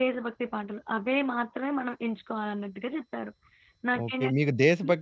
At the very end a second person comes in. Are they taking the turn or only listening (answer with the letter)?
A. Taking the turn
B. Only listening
A